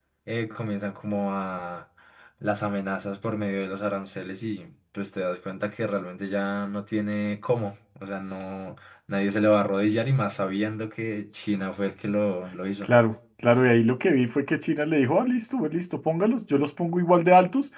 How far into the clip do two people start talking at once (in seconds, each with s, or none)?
none